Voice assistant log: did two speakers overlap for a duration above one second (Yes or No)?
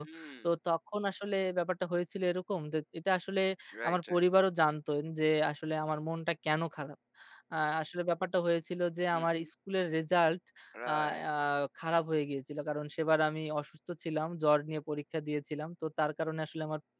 No